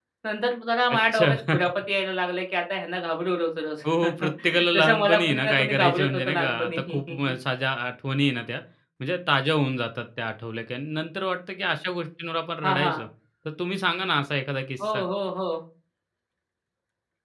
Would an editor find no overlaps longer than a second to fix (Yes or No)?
No